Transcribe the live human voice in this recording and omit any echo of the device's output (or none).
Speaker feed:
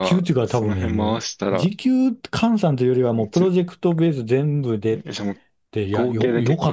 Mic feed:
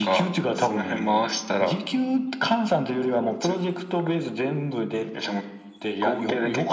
none